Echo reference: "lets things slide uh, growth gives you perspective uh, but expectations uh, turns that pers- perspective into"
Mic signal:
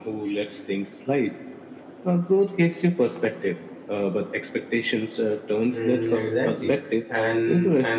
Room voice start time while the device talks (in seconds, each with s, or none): 5.7 s